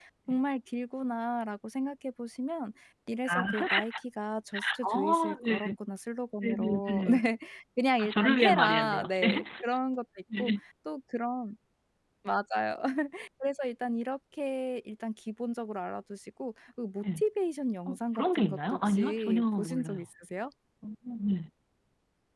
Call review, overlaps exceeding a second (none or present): present